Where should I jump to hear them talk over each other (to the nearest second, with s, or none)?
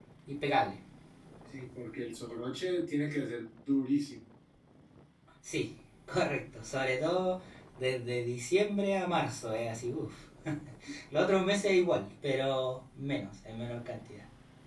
none